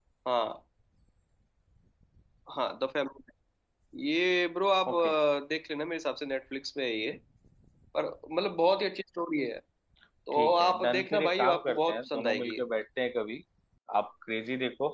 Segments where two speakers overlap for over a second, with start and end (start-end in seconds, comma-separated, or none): 10.3-12.6